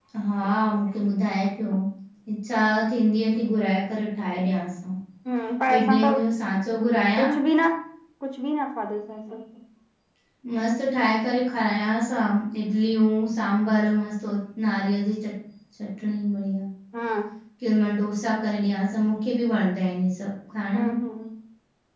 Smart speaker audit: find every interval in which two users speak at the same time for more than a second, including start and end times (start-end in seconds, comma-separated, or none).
none